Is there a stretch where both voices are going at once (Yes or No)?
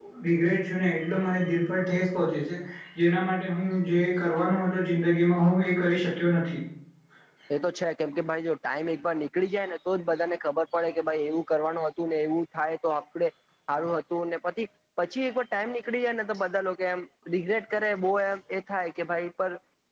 No